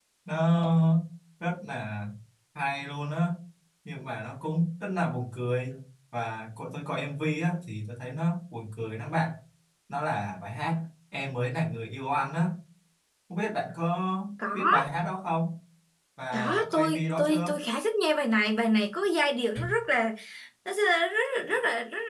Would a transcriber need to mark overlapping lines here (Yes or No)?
Yes